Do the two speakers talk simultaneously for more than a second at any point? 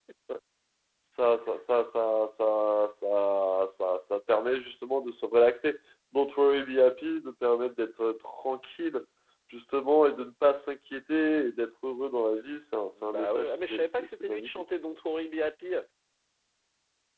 Yes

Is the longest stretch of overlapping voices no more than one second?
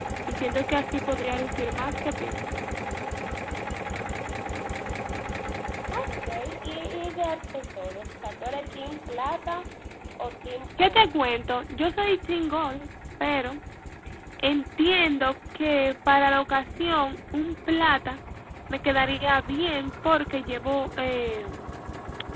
Yes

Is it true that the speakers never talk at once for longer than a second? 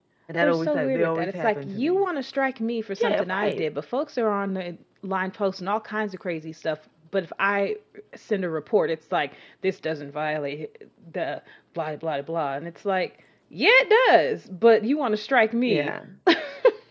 No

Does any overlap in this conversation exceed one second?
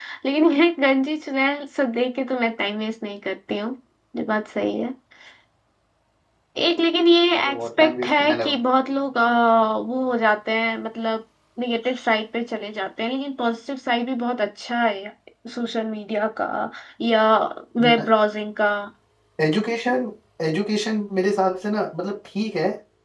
Yes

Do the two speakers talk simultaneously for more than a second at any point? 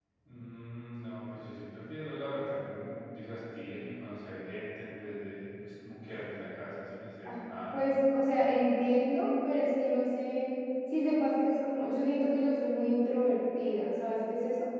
No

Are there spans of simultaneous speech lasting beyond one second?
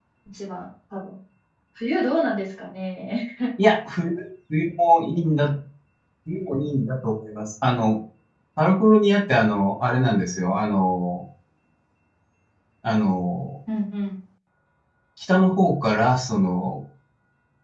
No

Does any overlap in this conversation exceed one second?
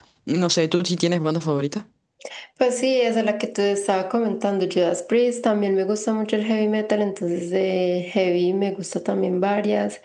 No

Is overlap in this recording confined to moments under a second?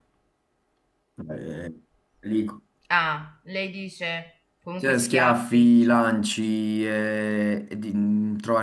No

